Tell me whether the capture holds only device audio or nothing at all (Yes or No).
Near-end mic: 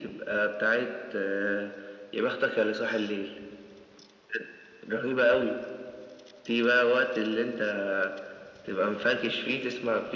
Yes